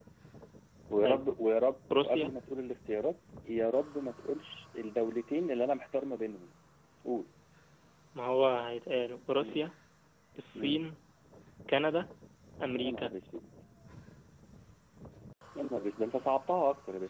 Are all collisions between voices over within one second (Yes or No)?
Yes